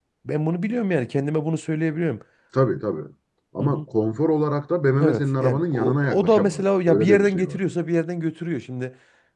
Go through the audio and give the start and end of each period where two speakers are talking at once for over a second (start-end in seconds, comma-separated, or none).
5.0-7.6